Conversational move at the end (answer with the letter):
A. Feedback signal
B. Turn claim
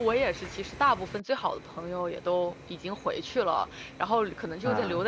A